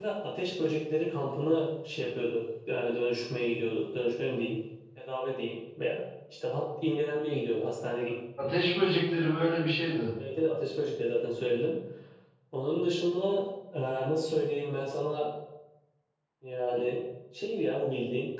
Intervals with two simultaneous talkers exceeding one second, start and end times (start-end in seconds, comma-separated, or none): none